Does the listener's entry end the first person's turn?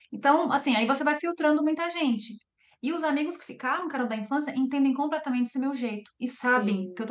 No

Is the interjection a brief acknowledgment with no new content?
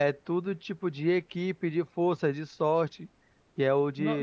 No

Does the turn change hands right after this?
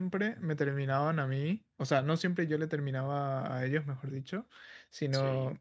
No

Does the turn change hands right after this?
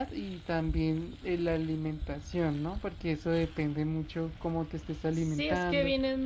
Yes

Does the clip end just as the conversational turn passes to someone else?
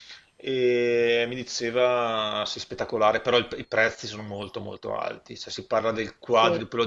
No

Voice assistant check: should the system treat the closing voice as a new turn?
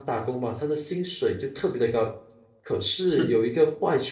No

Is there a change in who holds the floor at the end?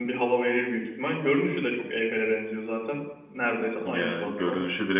Yes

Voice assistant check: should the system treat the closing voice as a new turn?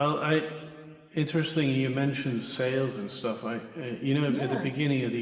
No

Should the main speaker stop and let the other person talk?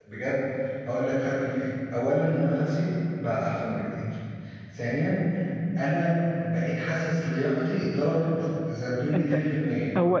Yes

